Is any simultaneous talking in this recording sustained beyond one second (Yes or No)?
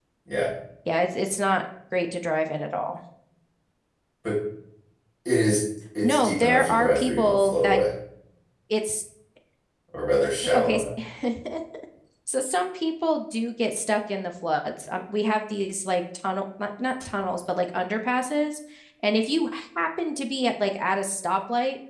Yes